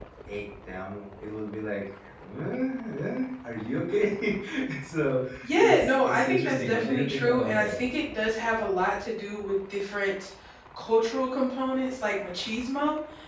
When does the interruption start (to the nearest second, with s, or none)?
6 s